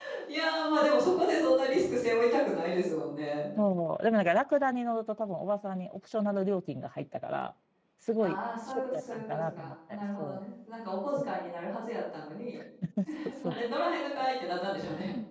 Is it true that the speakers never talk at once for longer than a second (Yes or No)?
No